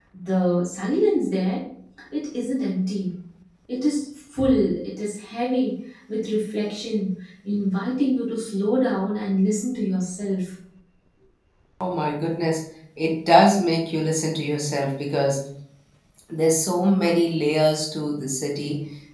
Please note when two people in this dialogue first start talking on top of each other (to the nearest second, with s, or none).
none